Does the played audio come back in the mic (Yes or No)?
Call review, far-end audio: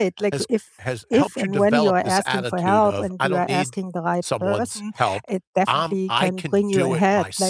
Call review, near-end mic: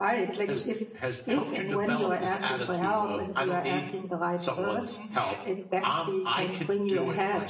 Yes